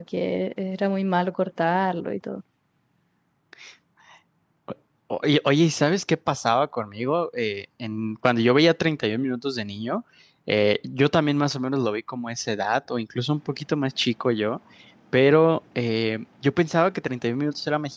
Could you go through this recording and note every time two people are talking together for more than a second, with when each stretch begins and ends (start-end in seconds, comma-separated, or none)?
none